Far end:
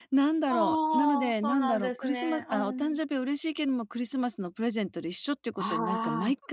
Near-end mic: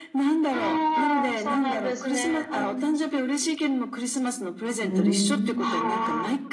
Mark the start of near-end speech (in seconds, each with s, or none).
4.8 s